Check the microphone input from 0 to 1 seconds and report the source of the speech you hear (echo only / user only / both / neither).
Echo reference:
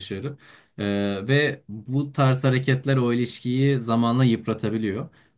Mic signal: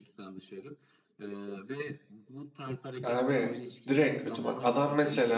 echo only